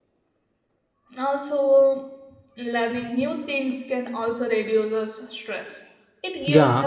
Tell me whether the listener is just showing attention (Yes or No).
No